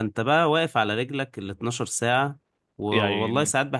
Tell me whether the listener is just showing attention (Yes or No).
Yes